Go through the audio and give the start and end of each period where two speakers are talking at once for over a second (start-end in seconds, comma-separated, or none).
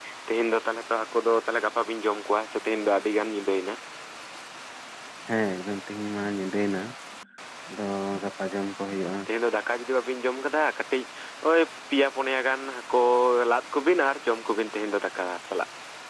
none